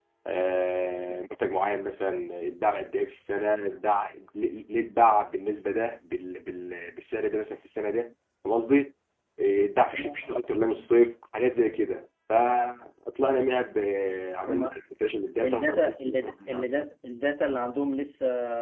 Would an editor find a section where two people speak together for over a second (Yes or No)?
Yes